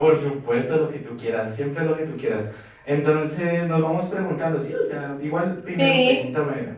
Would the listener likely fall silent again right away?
Yes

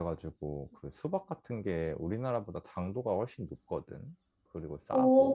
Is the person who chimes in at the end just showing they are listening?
No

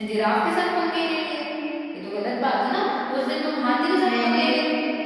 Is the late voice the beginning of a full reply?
No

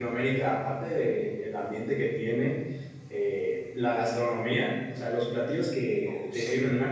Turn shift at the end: No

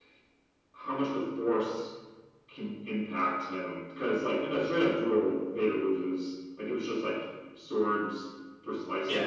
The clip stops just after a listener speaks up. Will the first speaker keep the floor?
No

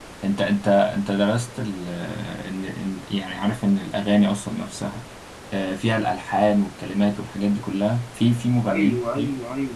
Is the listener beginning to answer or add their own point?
Yes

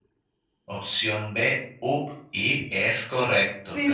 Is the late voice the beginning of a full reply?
Yes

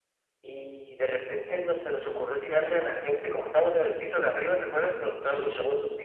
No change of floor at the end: Yes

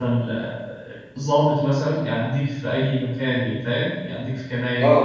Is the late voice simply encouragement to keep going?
No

